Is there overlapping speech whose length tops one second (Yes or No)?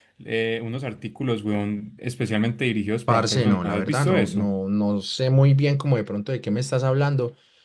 Yes